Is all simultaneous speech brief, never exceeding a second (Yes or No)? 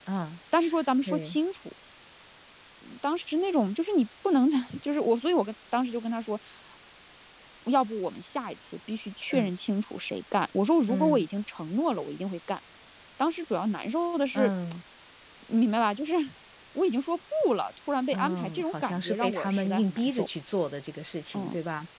No